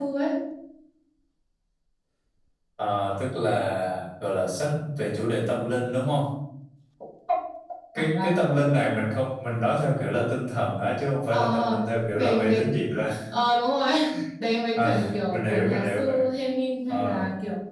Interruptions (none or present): present